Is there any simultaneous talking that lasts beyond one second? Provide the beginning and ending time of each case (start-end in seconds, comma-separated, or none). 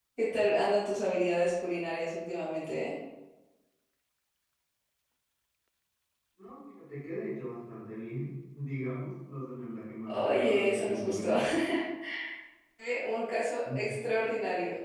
10.1-11.3